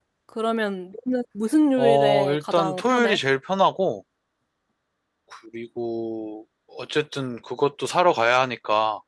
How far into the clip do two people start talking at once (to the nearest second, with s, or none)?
2 s